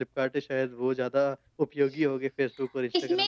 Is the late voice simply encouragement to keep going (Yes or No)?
No